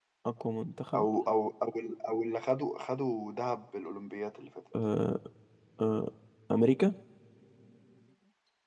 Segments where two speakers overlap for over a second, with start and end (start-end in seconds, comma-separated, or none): none